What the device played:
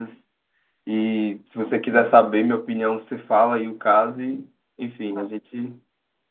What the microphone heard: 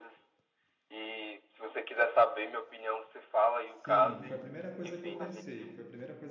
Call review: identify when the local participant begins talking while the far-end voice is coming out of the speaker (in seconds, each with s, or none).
3.6 s